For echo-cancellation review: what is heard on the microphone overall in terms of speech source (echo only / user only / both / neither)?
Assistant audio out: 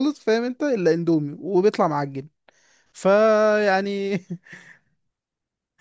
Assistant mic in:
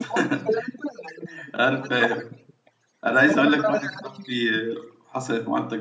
both